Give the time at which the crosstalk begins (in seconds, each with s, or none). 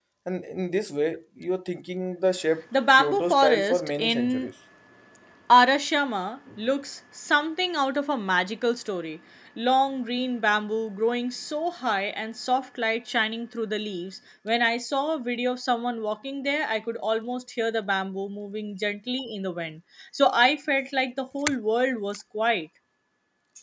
3.0 s